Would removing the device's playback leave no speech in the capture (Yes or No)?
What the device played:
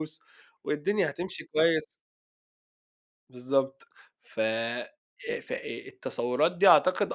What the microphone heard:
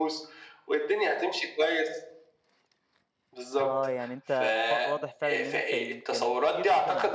No